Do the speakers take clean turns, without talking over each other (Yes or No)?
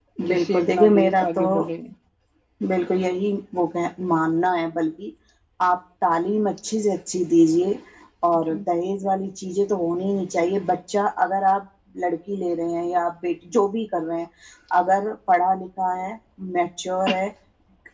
No